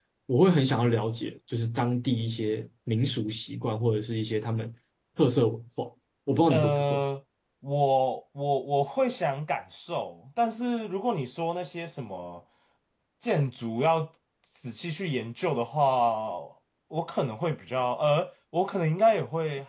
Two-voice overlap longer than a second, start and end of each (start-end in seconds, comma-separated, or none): none